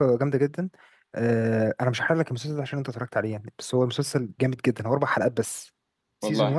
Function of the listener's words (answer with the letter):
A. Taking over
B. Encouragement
B